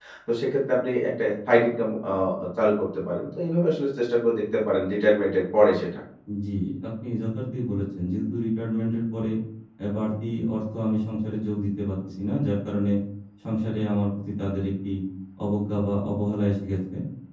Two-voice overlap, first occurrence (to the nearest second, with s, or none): none